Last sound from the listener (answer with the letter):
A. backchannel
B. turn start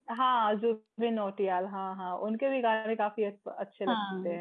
B